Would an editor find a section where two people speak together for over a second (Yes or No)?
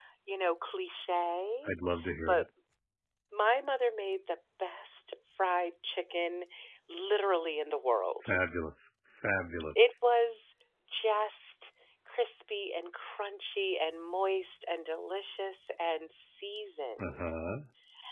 No